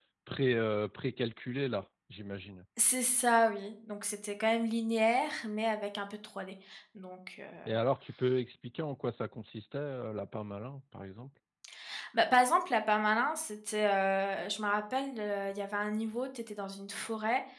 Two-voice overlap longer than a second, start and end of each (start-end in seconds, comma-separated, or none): none